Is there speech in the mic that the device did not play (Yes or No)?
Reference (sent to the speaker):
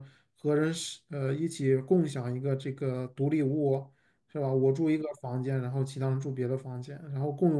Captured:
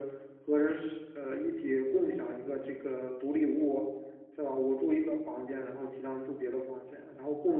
No